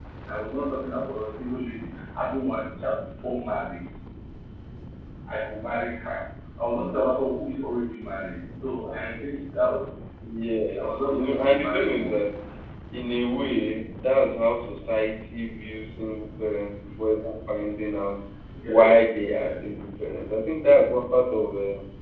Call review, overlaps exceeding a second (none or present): present